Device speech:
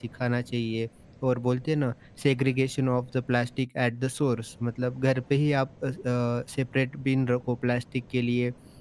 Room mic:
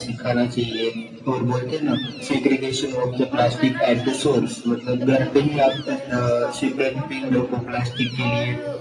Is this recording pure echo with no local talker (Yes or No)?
No